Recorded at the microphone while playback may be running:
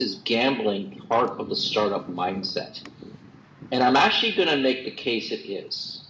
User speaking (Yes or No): No